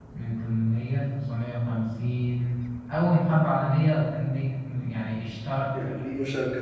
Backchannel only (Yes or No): No